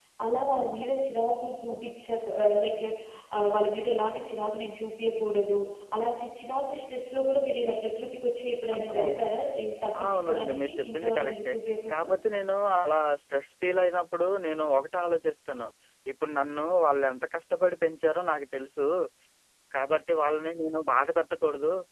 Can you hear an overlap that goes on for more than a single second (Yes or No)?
Yes